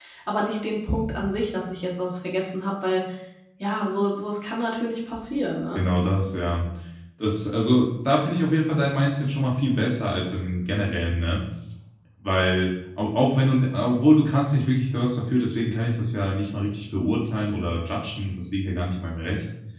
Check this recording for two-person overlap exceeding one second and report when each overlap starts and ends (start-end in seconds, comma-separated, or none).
none